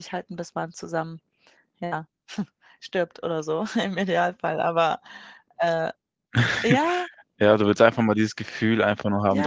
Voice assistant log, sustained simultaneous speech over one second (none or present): none